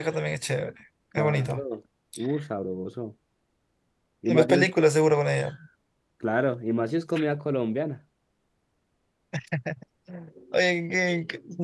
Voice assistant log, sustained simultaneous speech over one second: none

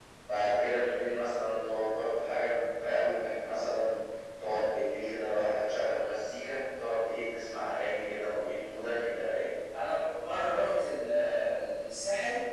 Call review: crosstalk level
none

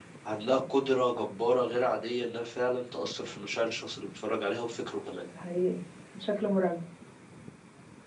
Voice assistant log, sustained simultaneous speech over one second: none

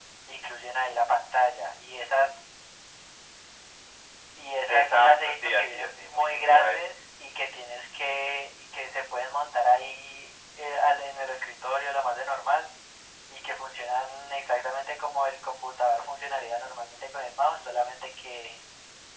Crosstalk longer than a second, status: present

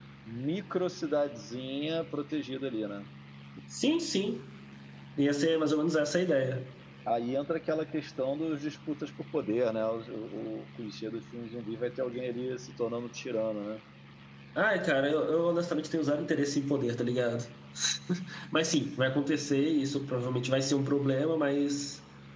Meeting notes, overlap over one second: none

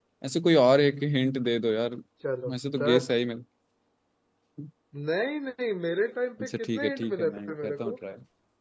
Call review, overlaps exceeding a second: present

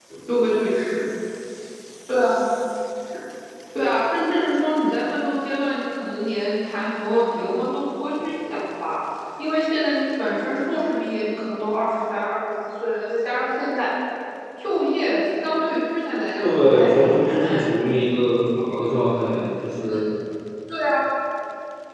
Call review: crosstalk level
present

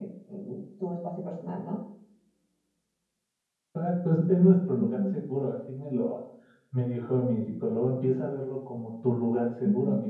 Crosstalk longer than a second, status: none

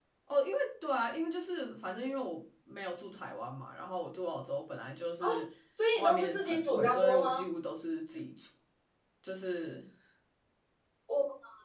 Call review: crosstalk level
present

